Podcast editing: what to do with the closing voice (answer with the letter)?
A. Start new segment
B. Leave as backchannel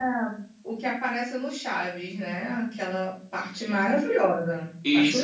A